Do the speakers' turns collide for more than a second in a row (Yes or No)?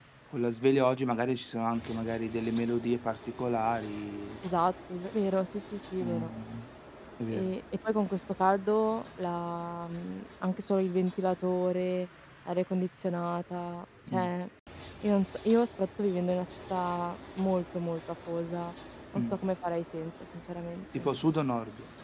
No